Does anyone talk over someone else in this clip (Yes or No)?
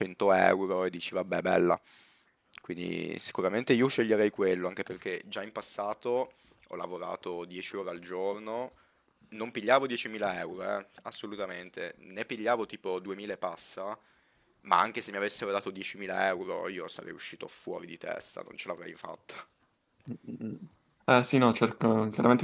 No